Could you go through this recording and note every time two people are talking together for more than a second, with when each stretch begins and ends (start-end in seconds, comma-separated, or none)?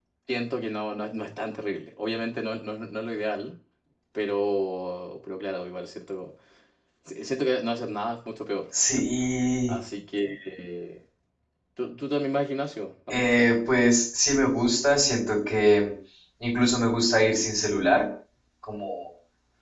none